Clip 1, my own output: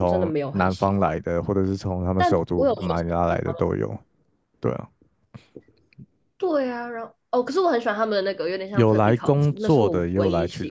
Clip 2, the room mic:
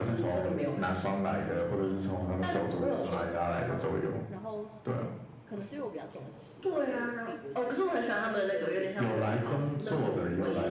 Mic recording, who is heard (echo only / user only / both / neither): both